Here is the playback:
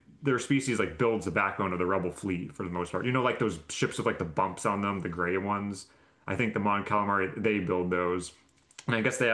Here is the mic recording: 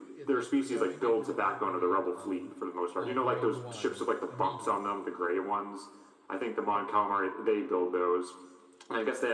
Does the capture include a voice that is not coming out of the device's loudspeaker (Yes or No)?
Yes